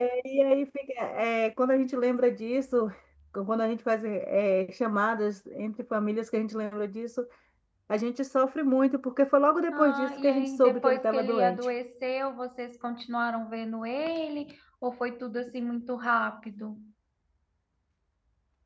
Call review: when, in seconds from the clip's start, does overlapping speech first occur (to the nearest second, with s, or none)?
10 s